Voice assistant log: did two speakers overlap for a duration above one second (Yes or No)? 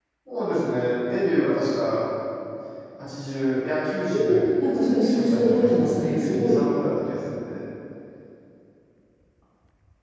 Yes